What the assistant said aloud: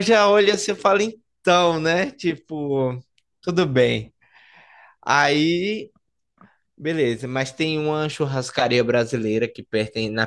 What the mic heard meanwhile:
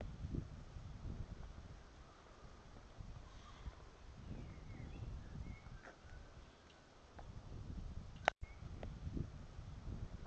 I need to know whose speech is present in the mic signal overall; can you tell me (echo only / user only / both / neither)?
neither